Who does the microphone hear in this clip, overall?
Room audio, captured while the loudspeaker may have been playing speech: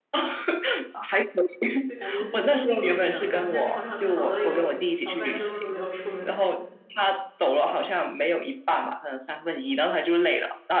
both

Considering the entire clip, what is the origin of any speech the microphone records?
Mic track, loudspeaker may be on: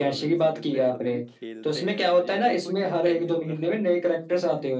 both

